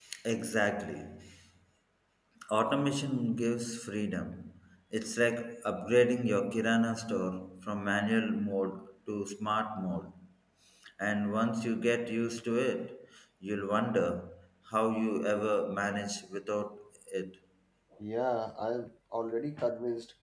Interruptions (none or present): none